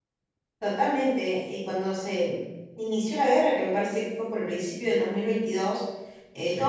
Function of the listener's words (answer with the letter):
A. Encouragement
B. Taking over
A